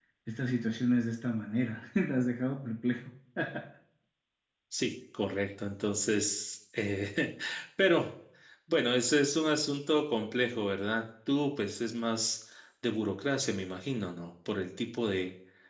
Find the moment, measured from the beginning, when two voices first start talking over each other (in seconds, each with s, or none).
none